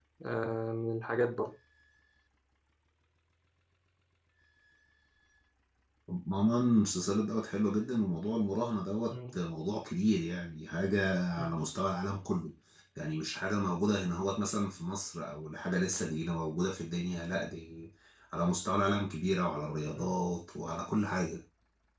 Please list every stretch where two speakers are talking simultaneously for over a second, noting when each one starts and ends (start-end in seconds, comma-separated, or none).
none